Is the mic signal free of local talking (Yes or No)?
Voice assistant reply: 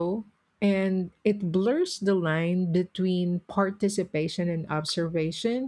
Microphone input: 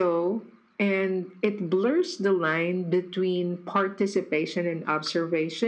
Yes